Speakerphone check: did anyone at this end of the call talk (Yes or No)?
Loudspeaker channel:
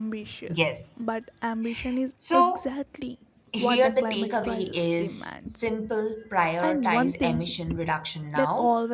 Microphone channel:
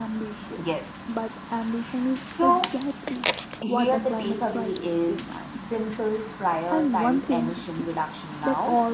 No